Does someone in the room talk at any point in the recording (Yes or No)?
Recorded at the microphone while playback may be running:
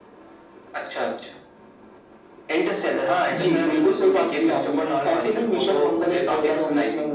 No